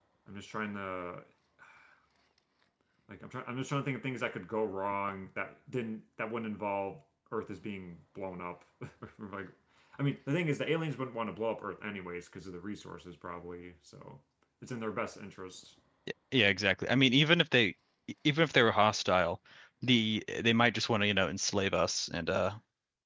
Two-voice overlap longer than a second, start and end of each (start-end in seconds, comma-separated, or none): none